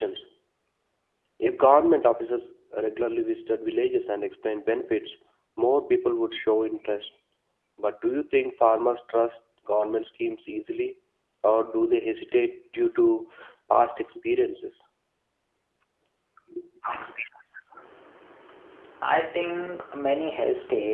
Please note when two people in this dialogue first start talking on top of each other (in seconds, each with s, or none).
none